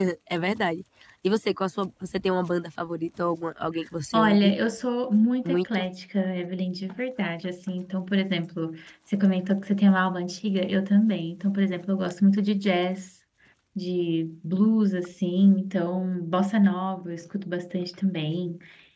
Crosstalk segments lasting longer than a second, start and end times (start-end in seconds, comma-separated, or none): none